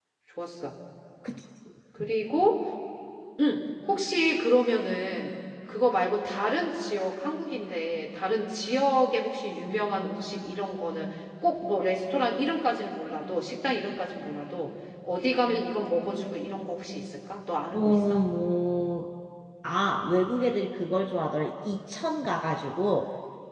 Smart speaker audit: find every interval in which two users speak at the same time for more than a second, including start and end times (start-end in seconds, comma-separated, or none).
none